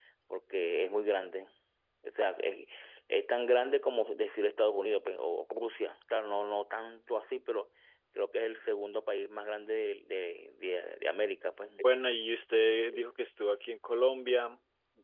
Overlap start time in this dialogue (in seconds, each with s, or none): none